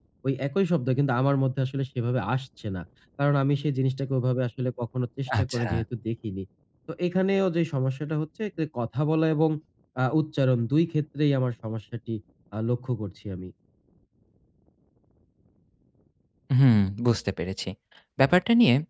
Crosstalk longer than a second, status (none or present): none